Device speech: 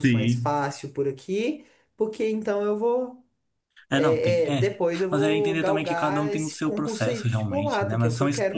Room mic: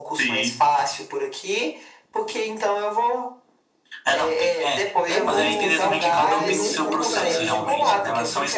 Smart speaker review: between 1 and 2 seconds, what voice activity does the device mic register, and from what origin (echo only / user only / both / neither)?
echo only